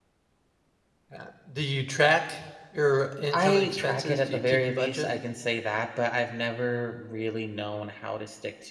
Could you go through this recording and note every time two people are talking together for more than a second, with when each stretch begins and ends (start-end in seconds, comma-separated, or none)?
3.3-5.1